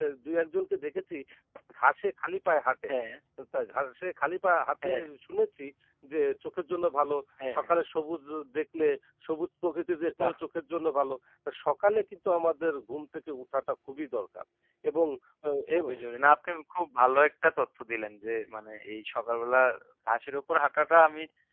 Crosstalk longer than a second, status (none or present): none